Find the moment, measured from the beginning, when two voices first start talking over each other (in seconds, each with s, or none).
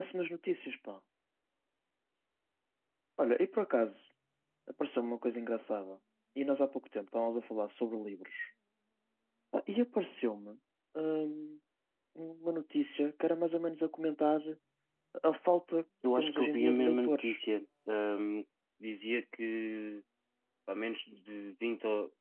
16.0 s